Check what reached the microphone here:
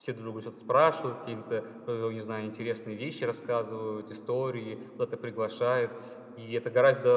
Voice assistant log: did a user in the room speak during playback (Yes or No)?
Yes